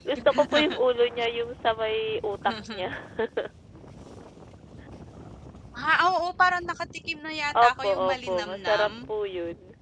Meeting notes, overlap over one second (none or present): present